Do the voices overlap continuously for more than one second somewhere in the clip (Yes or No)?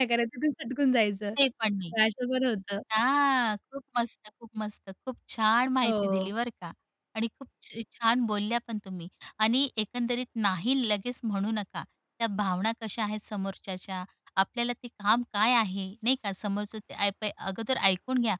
No